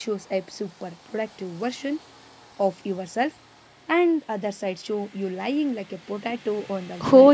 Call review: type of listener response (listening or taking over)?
taking over